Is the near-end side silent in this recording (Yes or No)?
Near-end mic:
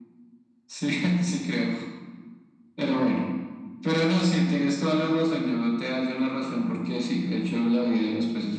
Yes